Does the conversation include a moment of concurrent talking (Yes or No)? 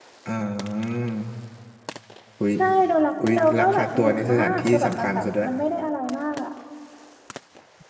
Yes